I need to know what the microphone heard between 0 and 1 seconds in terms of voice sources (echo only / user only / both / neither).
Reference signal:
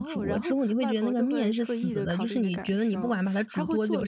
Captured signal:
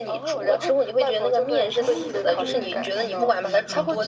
echo only